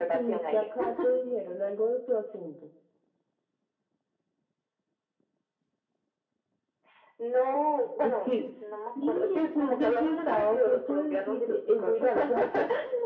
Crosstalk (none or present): present